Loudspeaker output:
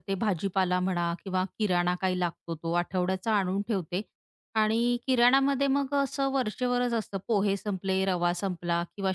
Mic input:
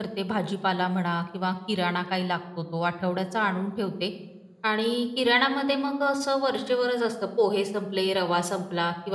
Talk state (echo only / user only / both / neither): echo only